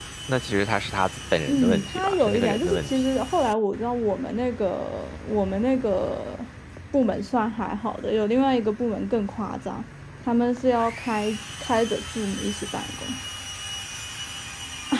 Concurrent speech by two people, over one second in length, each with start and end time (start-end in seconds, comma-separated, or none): 1.5-2.9